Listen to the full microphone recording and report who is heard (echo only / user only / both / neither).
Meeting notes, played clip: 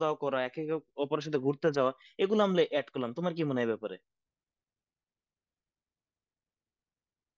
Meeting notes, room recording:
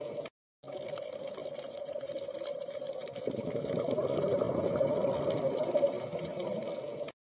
neither